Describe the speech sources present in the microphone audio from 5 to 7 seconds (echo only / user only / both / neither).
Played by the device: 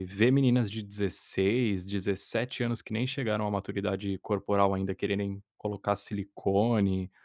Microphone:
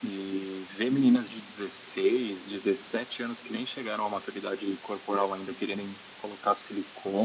echo only